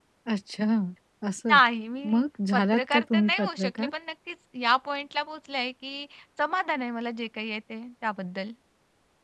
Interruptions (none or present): present